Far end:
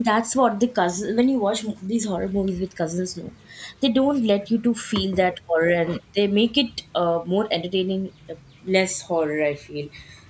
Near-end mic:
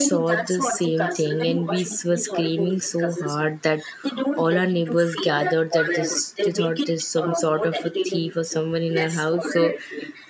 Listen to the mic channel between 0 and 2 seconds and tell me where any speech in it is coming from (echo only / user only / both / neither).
both